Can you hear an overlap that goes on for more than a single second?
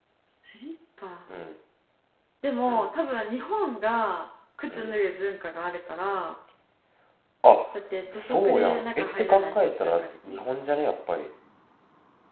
Yes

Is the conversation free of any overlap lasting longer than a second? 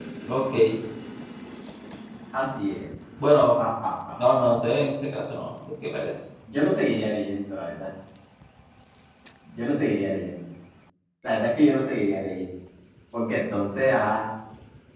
Yes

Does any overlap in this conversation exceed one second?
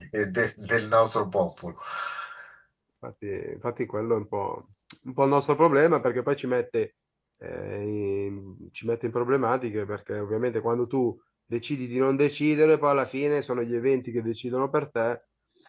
No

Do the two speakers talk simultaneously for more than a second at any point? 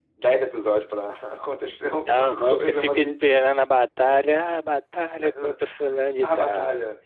Yes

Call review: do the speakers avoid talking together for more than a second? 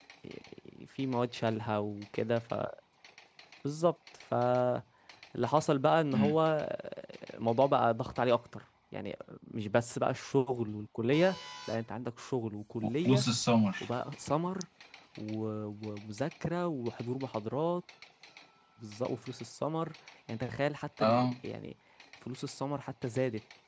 Yes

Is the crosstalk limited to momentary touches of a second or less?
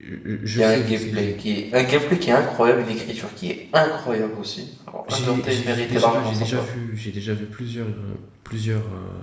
No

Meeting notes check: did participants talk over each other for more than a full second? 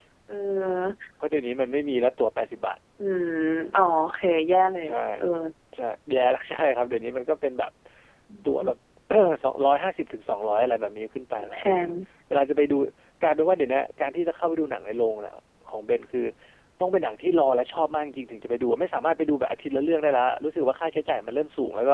No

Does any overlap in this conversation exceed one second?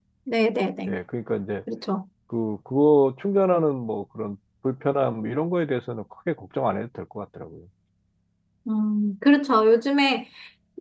No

